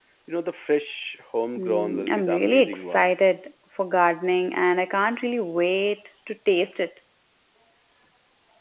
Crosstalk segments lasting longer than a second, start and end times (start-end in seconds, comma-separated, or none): 1.6-3.1